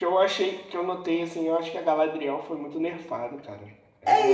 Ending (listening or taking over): taking over